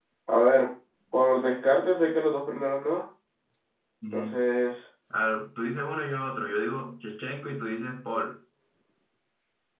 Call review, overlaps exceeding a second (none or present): none